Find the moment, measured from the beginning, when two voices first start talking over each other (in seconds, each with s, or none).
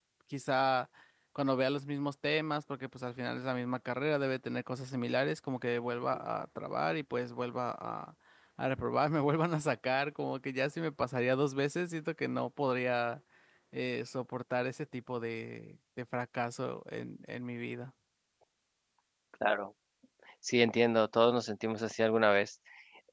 none